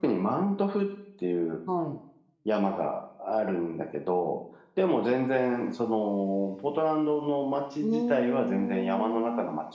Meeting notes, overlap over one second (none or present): present